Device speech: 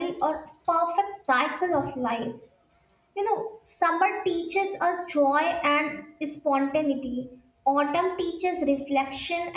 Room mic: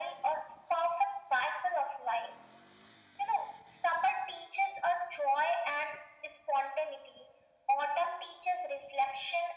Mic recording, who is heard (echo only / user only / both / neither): echo only